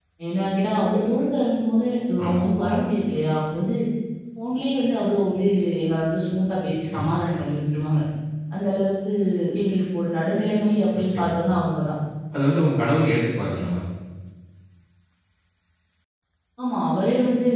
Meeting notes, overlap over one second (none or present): none